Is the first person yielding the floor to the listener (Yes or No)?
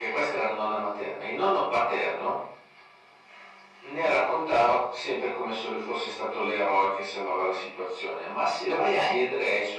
No